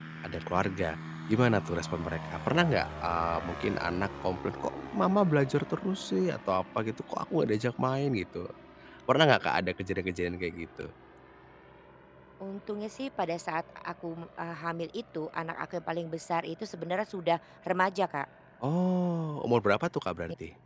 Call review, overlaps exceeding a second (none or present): none